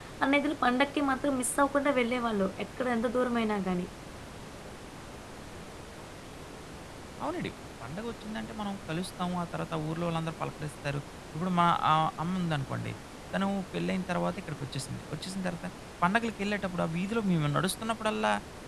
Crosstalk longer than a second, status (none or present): none